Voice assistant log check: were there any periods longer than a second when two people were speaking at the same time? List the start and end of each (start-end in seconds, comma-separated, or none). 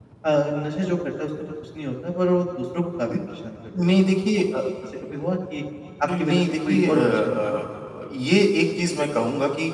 6.1-7.6